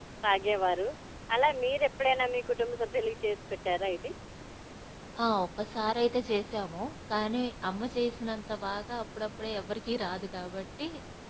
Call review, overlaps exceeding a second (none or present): none